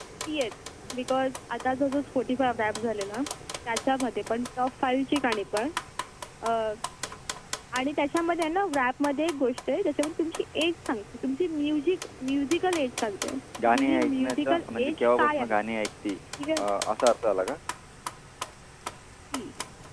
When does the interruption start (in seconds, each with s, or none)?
13.6 s